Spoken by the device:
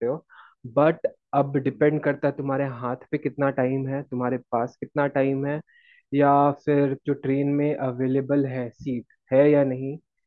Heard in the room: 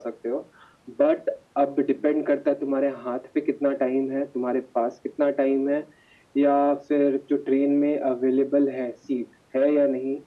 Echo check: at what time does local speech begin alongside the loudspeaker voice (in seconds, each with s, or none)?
none